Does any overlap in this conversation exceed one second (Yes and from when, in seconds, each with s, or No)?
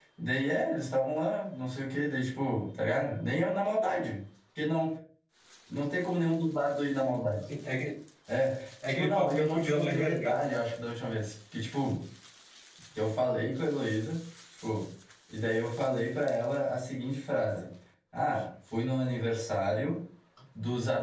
Yes, from 8.9 s